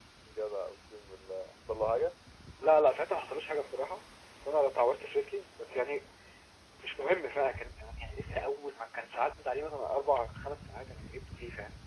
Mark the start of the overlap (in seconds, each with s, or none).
none